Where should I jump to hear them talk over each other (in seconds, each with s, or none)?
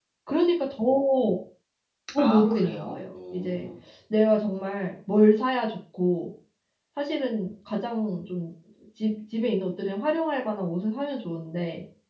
2.2 s